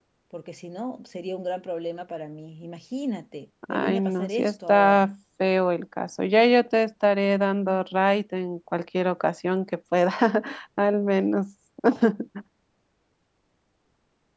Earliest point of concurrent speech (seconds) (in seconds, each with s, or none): 3.6 s